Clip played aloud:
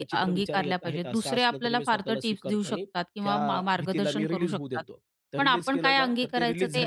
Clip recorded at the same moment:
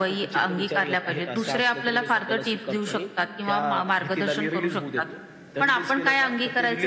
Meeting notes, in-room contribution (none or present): none